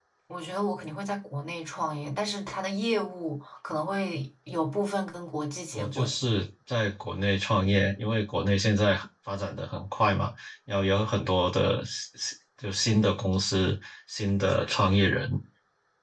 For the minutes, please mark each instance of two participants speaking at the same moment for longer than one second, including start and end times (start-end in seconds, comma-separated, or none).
none